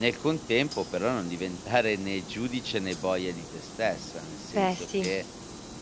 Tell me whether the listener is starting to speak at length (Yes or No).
No